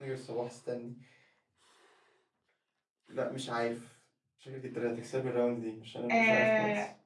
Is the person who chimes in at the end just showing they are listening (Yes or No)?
No